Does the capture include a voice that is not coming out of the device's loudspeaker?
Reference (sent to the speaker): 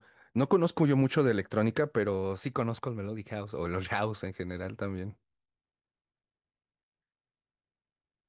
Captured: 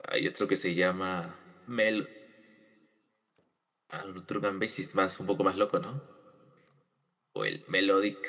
Yes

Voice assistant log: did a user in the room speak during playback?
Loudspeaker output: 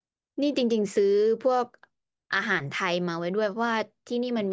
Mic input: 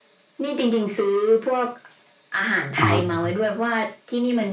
Yes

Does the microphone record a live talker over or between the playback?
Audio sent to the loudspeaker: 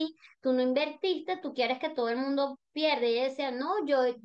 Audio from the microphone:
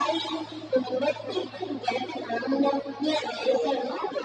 No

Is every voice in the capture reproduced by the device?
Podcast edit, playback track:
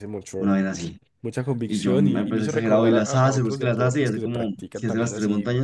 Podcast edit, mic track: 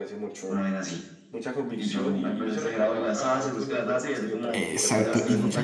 No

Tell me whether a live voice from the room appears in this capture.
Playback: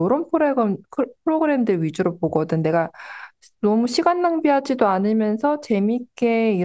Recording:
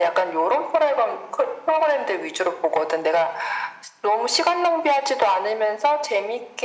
No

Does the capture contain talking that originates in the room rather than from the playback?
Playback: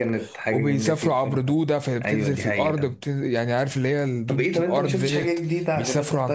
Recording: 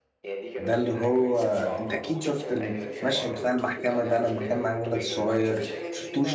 Yes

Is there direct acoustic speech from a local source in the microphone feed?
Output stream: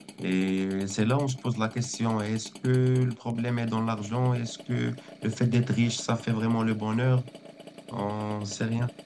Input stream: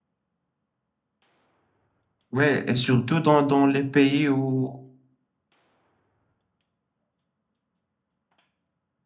Yes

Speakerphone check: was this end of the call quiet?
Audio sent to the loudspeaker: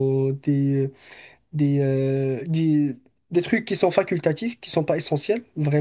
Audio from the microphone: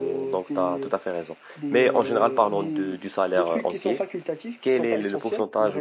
No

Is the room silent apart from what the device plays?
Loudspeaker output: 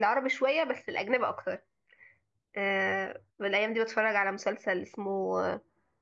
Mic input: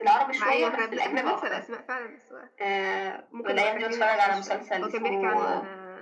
No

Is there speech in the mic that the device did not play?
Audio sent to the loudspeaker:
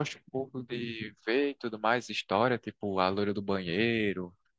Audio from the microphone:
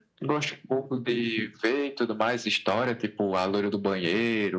No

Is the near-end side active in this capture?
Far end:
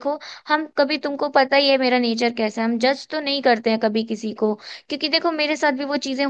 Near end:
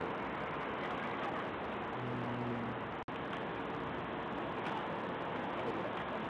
No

